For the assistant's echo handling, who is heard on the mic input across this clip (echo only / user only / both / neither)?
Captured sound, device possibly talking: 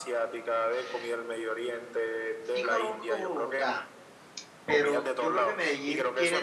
both